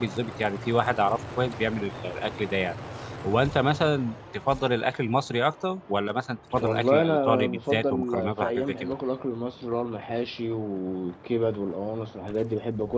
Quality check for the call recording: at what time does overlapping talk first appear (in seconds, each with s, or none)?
6.6 s